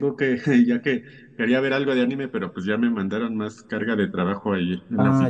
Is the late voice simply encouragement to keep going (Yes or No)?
No